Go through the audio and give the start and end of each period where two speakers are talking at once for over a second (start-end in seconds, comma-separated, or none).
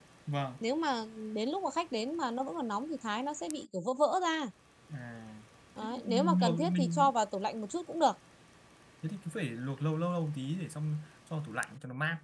5.8-7.1